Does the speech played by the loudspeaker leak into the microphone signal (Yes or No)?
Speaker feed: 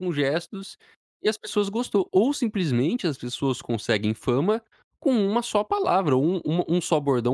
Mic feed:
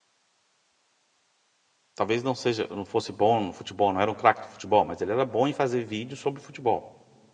No